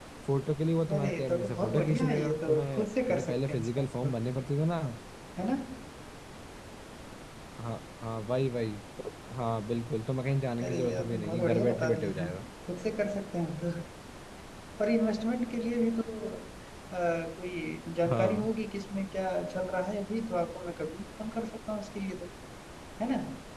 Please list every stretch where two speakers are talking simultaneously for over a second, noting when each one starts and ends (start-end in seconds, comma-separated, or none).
0.9-4.2, 10.7-12.3